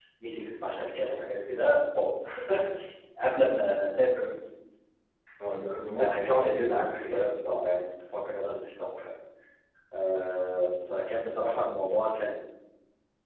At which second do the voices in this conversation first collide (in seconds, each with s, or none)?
5.8 s